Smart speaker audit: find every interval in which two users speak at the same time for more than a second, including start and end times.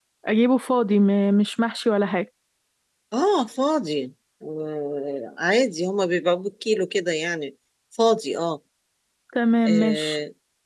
none

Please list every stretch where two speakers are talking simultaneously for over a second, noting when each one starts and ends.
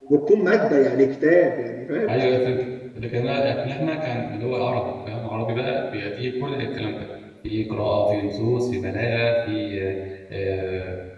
none

